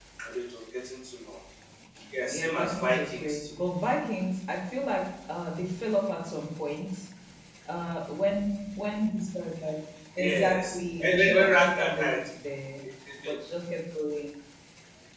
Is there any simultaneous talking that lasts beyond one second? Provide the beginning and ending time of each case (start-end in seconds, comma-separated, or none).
2.3-3.6, 10.2-12.2